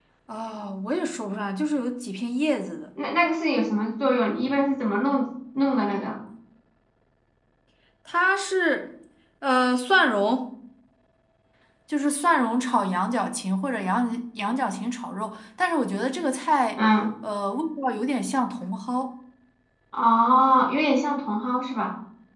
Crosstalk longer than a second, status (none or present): none